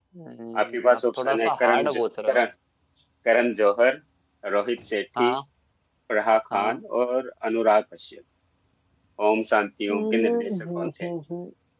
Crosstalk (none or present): present